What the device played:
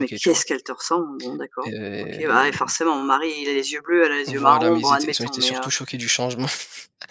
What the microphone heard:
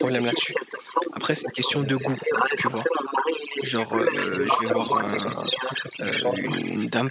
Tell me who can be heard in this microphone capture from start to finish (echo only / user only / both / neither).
both